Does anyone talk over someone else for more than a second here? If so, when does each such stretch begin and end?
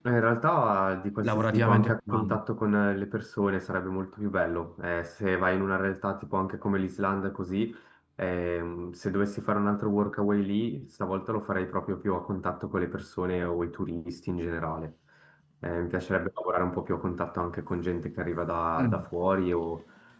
1.2-2.4

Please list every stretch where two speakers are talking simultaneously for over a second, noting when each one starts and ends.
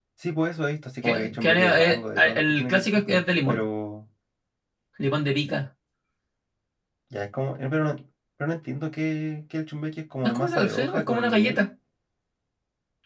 1.1-3.6, 10.2-11.7

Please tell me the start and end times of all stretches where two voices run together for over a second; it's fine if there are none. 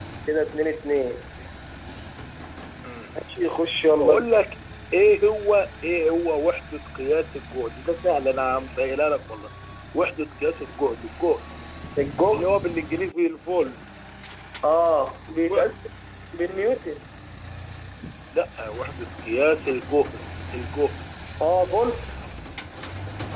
none

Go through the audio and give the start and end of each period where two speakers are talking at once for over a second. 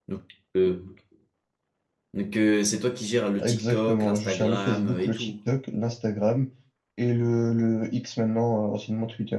3.4-5.3

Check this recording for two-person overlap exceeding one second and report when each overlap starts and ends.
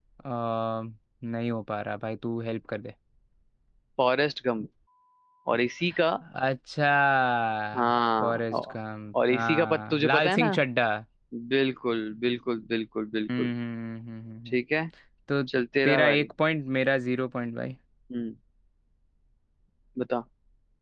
9.3-10.5

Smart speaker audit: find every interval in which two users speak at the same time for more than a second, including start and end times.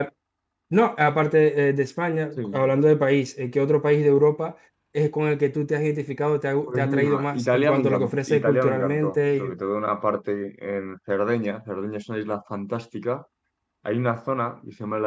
6.6-9.5

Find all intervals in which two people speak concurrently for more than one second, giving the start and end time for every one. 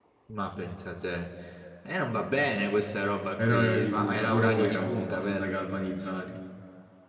3.4-5.5

